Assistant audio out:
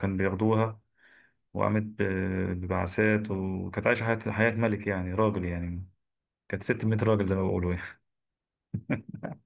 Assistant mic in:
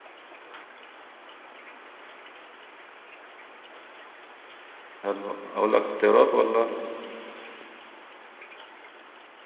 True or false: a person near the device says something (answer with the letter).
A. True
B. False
A